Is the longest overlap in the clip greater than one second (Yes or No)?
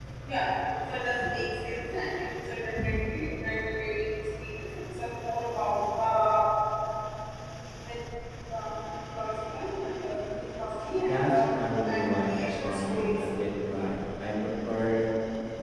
Yes